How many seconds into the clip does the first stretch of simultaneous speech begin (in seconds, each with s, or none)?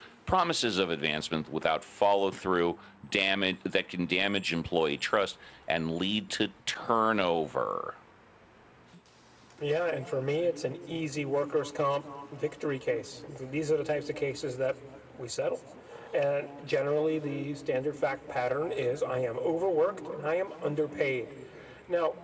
none